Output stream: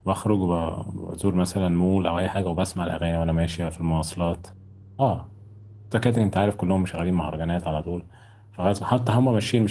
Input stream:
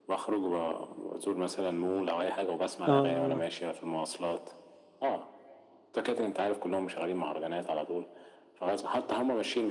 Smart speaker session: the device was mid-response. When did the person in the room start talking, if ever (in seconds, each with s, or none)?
2.9 s